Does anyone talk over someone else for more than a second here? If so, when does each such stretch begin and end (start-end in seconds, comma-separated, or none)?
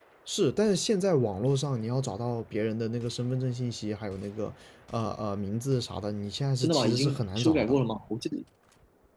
6.6-7.8